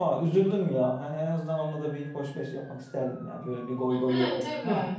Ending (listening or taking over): taking over